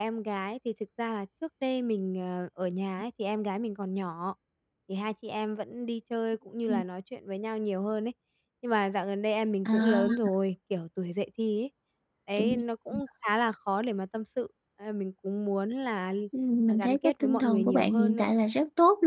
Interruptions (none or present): present